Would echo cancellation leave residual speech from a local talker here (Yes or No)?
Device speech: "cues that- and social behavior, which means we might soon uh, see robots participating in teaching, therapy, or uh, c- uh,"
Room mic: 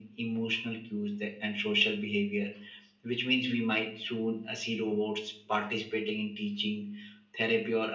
No